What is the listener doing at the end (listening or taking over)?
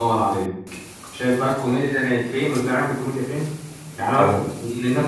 listening